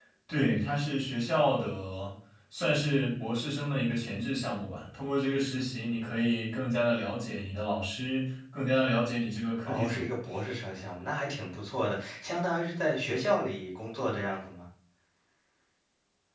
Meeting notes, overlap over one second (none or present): none